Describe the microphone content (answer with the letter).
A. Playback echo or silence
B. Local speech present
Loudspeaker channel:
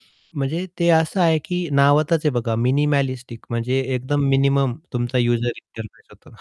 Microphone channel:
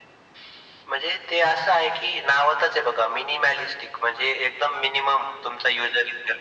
A